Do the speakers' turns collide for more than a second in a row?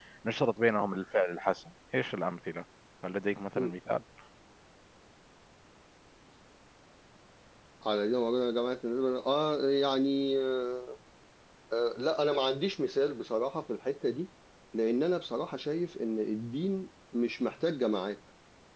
No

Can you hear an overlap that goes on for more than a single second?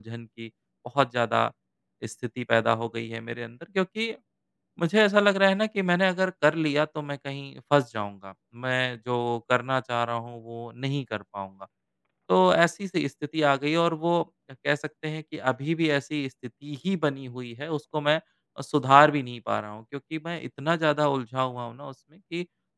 No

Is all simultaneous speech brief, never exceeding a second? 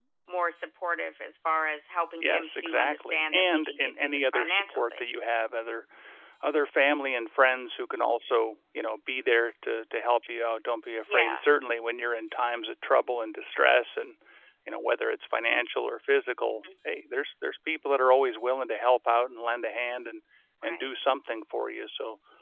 No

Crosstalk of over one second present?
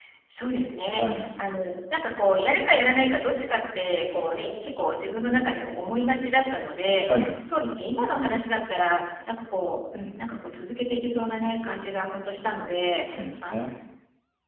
No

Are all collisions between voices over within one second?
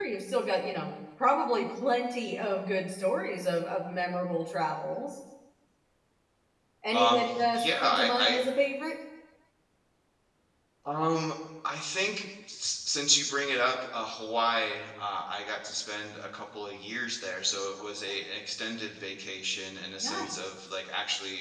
No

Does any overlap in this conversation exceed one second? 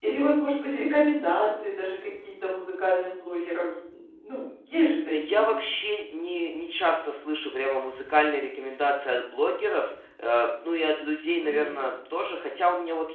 No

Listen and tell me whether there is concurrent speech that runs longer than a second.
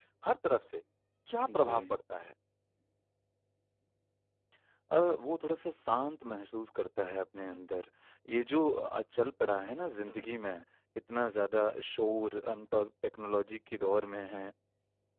No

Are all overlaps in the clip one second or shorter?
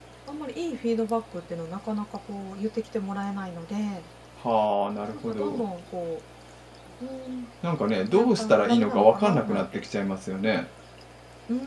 No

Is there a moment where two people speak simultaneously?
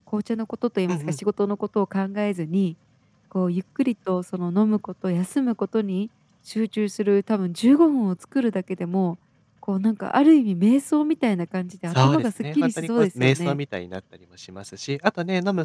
Yes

